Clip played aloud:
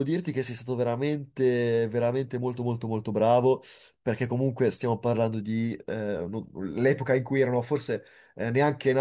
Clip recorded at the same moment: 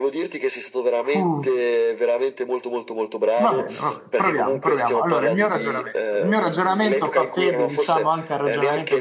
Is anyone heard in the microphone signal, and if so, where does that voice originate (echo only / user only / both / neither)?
both